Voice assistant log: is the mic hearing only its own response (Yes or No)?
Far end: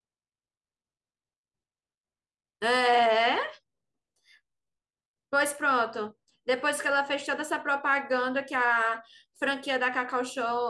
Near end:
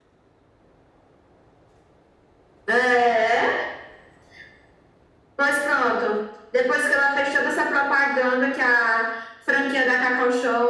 Yes